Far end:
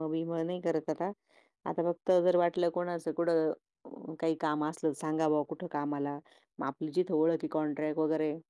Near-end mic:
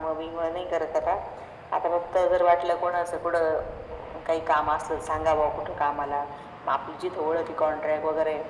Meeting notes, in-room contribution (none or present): none